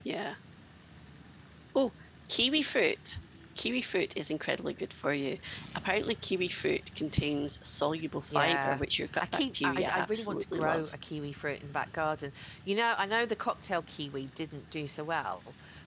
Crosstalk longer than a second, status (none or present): present